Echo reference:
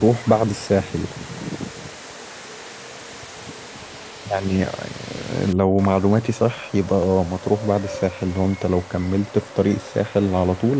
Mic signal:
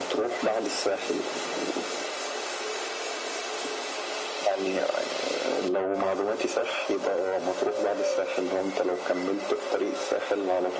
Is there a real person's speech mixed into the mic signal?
No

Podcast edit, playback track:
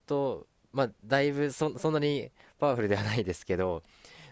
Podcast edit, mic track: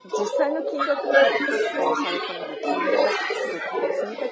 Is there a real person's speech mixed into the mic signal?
Yes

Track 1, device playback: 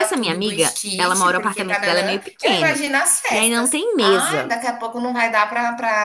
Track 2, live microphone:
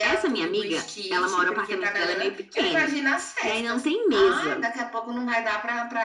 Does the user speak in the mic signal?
No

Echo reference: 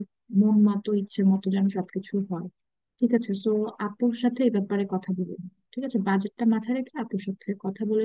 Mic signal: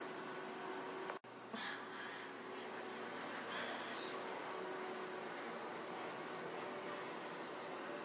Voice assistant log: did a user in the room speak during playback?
No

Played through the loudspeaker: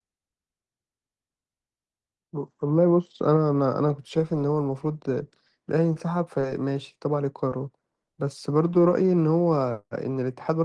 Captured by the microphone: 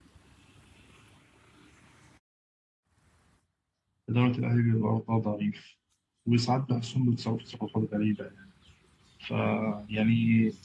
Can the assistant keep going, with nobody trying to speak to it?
No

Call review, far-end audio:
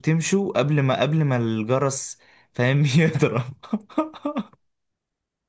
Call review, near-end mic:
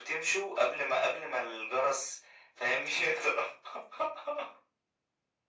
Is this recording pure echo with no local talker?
Yes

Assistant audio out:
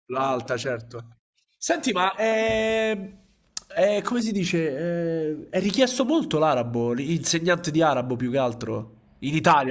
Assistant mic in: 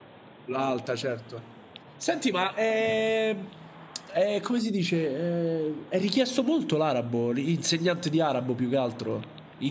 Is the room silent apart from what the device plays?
Yes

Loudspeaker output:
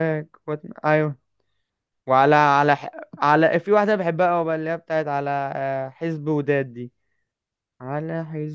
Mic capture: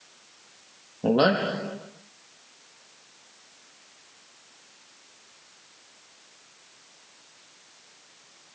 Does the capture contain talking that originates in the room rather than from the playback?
Yes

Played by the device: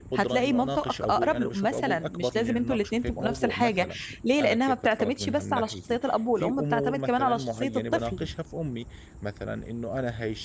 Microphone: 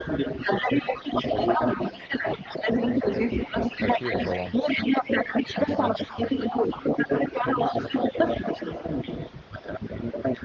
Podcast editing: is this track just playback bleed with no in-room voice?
No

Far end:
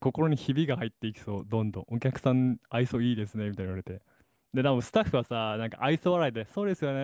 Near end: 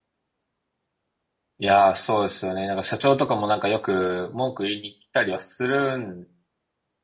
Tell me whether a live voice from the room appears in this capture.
Yes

